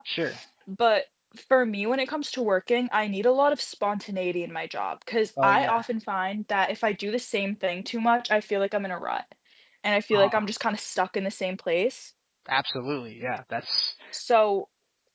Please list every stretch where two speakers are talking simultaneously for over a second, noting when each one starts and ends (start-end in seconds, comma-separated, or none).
none